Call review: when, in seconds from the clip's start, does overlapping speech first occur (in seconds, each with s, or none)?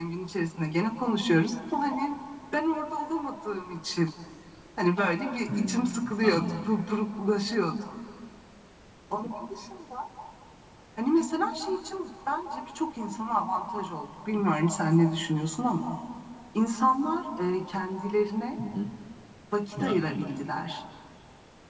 5.5 s